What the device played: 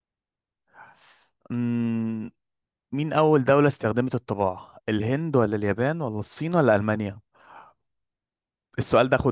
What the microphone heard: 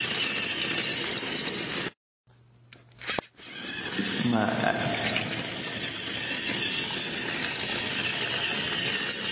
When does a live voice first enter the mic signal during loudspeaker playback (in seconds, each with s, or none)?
4.2 s